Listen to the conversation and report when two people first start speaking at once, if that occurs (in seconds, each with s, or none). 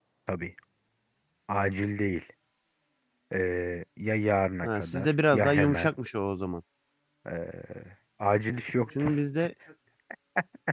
4.6 s